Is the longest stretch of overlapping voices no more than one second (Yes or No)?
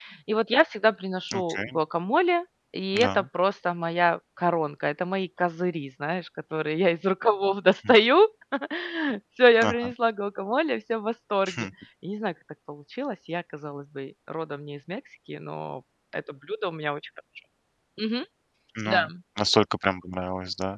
Yes